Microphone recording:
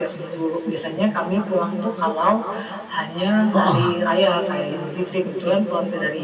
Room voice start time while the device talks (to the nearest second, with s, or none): 4 s